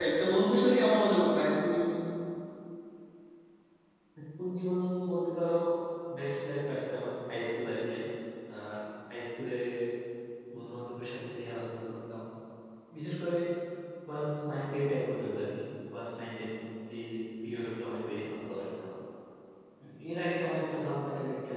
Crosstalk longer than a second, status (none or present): none